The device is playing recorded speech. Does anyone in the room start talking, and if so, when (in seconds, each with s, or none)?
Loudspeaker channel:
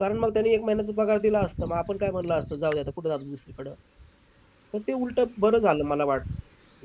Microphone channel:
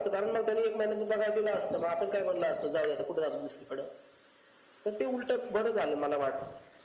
none